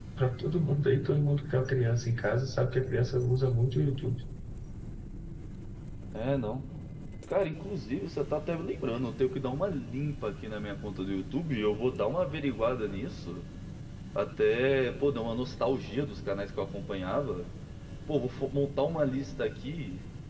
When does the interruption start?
none

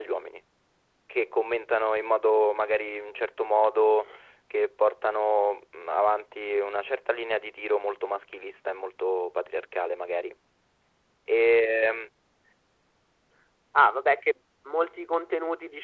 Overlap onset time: none

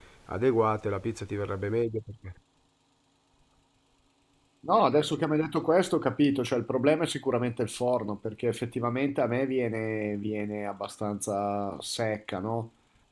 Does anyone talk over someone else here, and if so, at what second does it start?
none

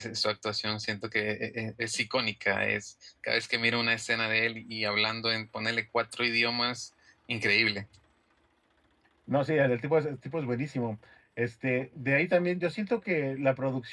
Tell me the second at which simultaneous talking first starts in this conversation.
none

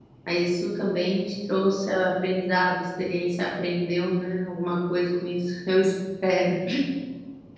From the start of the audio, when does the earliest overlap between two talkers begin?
none

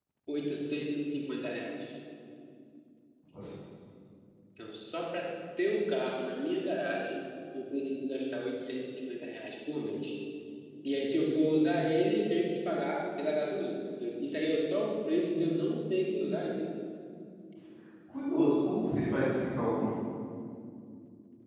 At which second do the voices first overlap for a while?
none

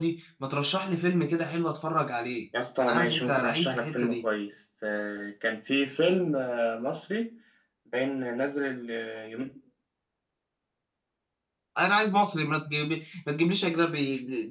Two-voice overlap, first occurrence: 2.8 s

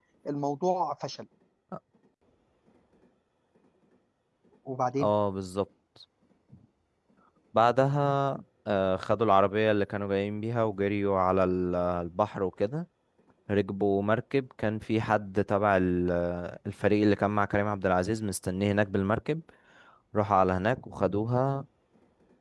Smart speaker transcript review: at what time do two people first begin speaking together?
none

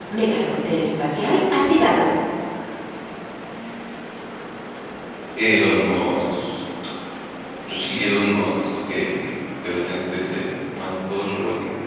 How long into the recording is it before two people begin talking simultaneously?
none

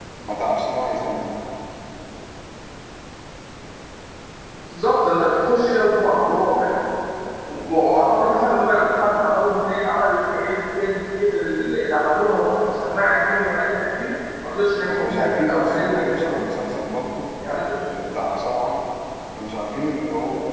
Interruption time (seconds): 14.9 s

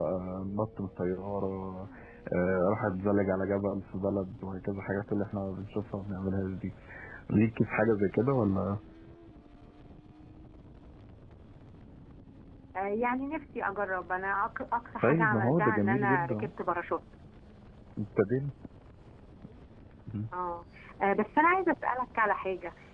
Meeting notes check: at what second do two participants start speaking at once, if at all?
15.0 s

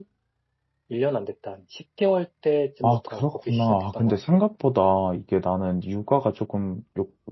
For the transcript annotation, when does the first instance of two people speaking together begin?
2.8 s

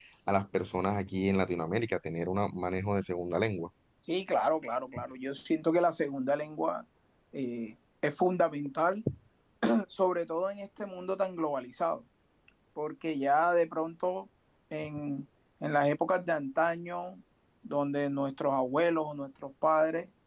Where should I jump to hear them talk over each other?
none

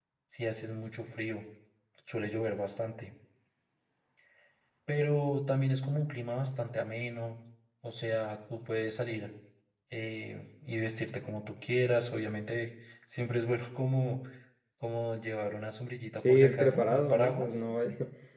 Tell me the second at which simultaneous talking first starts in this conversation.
16.2 s

